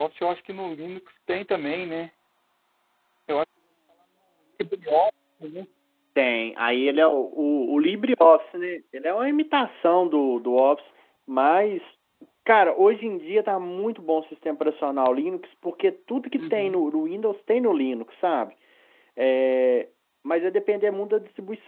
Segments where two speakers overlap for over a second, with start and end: none

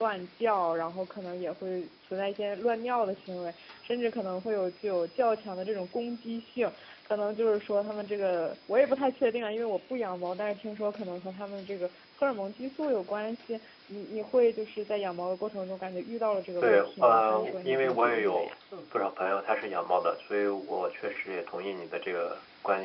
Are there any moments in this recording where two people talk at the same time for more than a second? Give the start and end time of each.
16.6-18.5

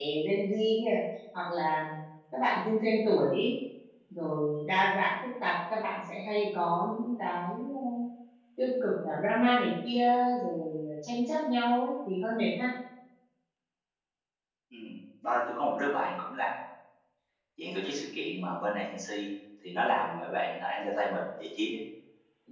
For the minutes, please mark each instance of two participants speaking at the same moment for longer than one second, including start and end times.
none

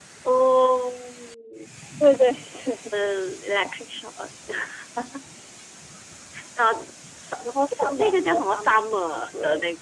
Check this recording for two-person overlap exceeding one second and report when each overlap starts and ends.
7.5-8.9

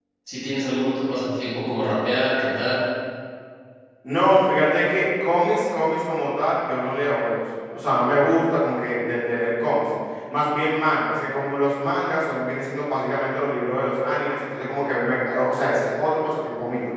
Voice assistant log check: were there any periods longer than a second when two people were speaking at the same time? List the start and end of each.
none

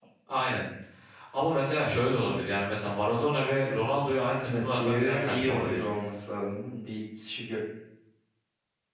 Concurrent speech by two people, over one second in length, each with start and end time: 4.5-5.8

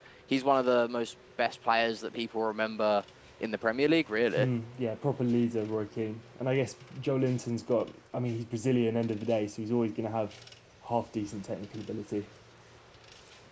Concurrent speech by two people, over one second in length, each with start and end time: none

